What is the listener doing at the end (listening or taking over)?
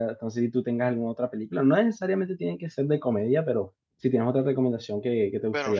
taking over